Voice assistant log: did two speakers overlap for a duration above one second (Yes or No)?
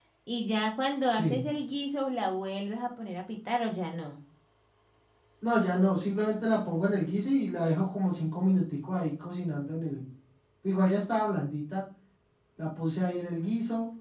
No